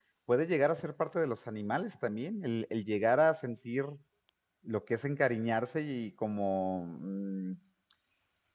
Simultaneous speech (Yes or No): No